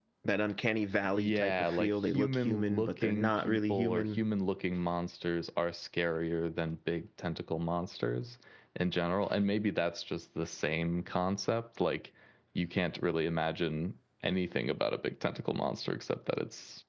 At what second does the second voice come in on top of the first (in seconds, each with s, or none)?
1.1 s